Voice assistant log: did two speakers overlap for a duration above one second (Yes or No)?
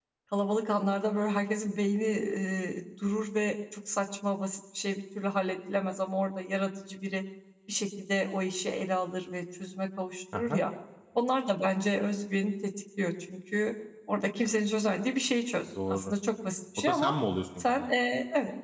No